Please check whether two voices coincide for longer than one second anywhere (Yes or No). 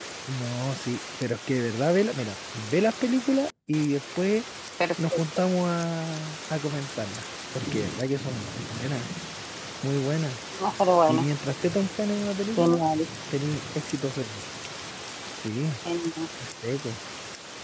No